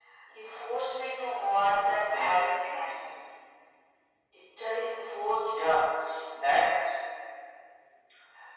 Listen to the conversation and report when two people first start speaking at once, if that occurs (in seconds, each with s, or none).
1.3 s